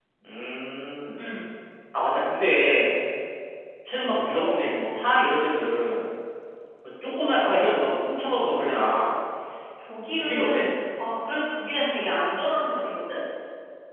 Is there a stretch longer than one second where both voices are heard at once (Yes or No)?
No